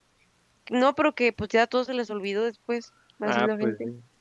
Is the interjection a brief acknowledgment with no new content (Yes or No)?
No